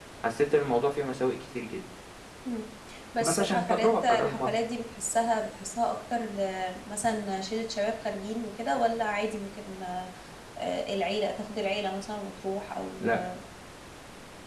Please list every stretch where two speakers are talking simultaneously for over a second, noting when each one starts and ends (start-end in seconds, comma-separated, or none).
3.2-4.5